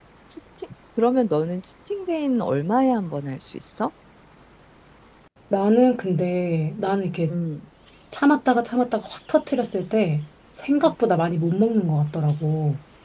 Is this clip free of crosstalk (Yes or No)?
Yes